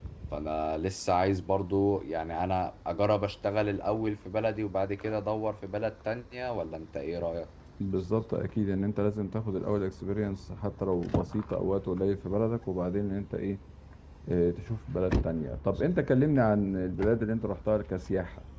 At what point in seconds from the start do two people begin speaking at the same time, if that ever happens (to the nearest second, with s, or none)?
none